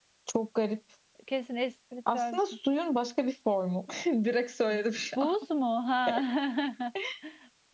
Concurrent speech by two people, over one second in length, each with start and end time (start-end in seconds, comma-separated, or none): none